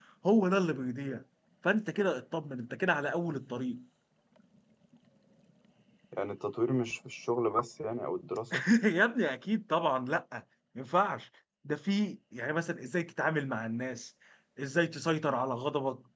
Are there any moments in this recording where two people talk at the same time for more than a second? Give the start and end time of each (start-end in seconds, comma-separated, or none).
none